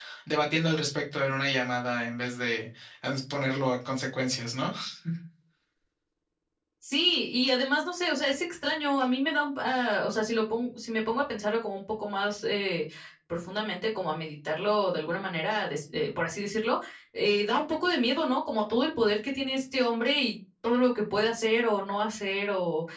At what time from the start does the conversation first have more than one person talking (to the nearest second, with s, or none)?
none